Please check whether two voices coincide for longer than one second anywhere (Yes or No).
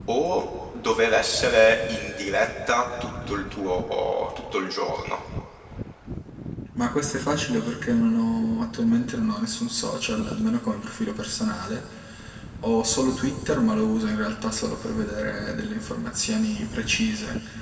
No